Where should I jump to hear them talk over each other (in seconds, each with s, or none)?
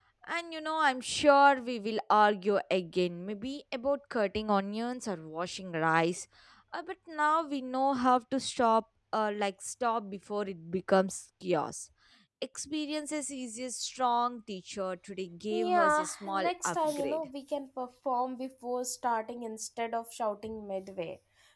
15.5 s